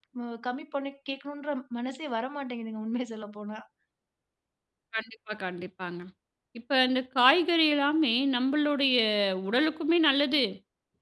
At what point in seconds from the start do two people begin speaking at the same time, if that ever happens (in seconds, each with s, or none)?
none